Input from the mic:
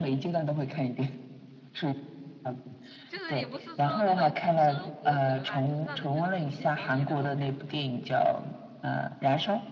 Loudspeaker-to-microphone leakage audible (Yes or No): Yes